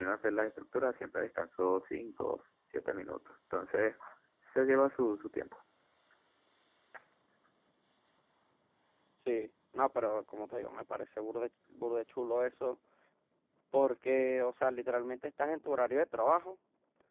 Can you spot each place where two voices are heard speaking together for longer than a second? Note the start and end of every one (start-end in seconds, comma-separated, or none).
none